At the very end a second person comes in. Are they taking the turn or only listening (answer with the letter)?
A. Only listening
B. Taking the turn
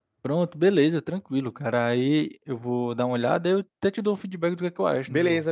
B